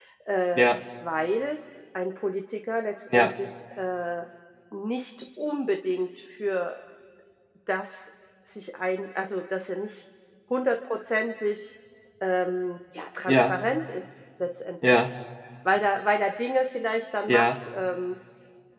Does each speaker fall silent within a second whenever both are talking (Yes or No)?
Yes